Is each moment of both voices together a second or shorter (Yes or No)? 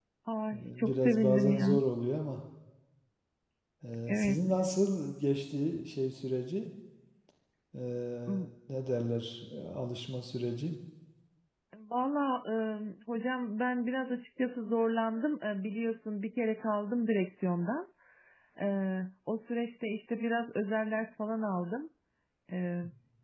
No